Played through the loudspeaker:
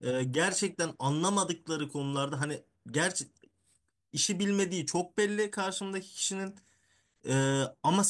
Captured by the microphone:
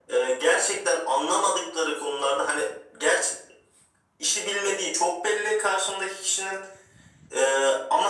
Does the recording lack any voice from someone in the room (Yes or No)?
Yes